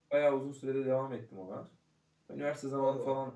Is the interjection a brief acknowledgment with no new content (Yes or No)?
Yes